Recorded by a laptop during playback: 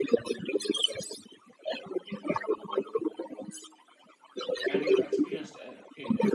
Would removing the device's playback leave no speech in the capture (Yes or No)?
No